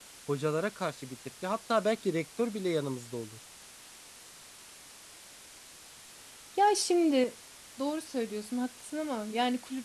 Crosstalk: none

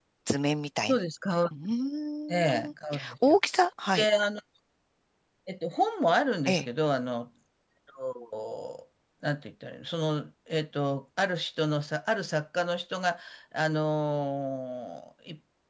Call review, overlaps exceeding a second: none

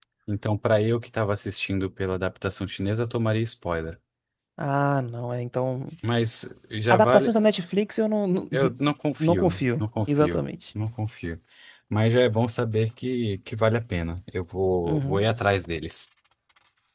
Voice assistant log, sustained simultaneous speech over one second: present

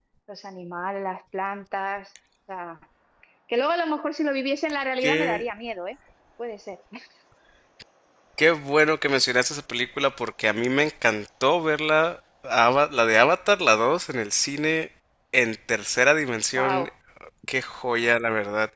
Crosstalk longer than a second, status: none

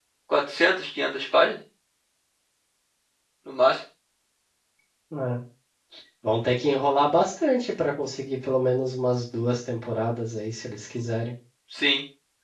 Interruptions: none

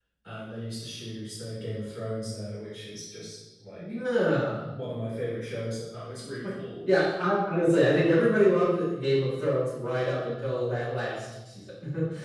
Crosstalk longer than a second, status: none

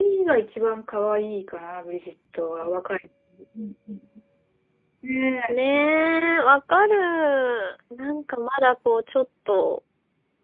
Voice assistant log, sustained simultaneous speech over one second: none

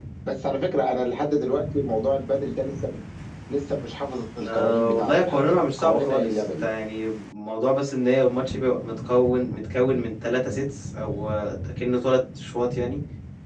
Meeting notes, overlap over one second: present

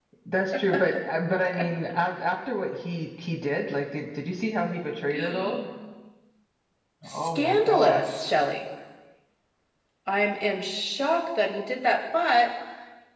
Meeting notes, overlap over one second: present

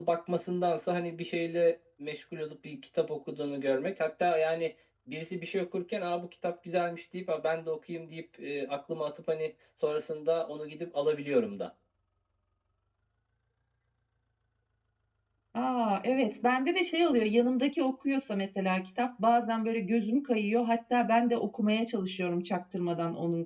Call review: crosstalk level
none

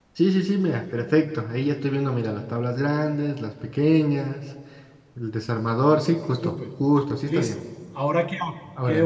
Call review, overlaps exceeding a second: none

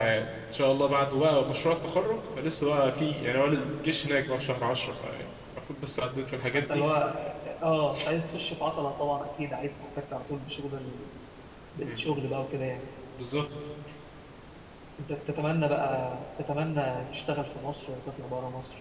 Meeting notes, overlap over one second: none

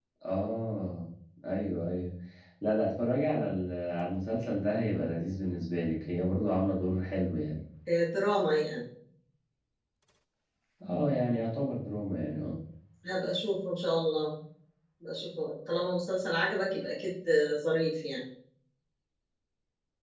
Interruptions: none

